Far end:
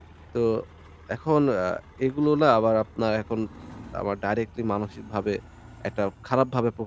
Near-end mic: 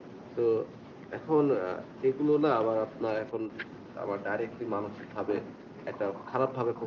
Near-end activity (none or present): none